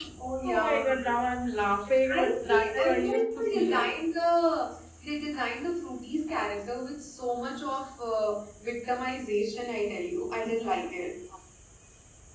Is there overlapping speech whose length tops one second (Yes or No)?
Yes